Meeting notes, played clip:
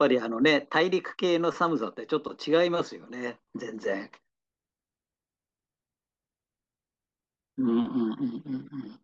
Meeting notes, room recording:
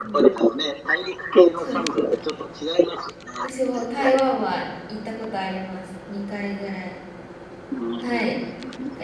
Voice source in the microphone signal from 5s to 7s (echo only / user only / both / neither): user only